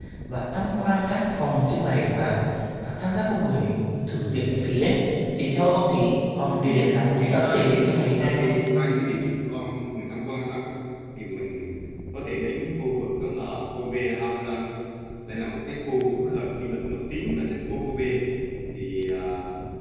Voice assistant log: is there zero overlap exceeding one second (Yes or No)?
No